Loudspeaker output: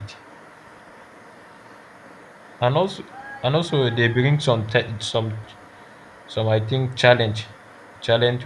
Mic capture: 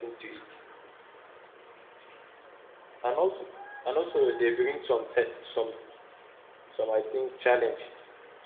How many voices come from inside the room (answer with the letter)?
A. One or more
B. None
B